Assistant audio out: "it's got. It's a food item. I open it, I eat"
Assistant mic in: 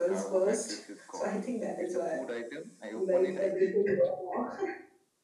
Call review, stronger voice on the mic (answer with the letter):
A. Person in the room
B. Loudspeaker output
A